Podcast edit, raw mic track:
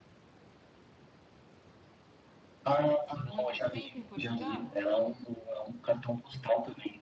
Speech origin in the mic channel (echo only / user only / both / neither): both